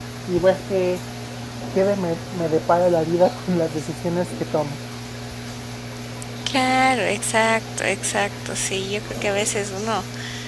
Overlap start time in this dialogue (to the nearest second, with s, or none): none